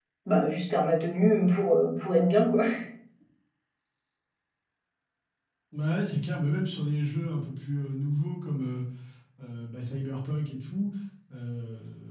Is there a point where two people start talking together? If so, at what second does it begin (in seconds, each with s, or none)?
none